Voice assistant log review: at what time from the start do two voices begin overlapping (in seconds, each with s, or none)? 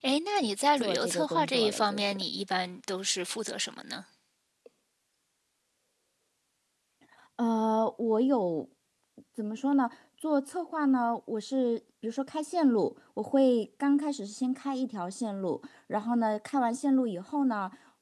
0.8 s